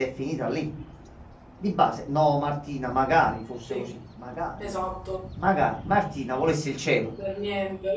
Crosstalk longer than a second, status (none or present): none